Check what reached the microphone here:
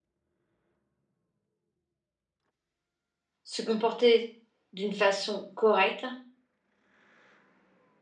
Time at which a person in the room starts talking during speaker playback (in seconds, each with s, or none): 3.4 s